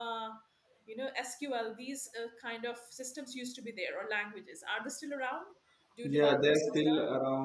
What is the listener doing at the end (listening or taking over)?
taking over